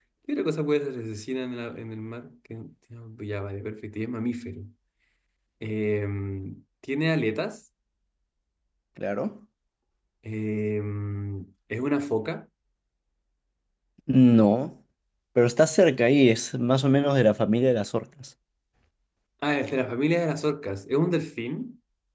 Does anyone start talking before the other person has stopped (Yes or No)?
No